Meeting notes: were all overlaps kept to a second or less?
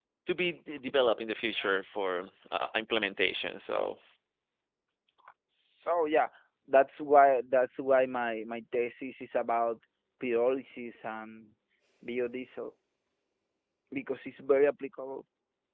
Yes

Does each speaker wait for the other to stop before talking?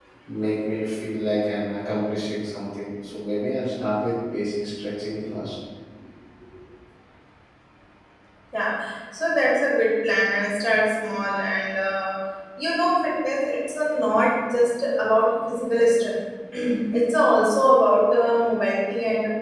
Yes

